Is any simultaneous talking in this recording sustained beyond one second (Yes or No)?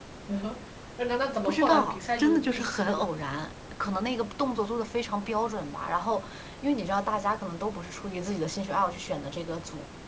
Yes